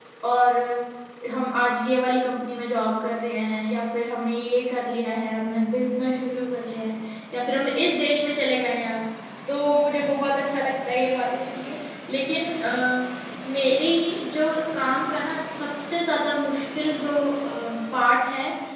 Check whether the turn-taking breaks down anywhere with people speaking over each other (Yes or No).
No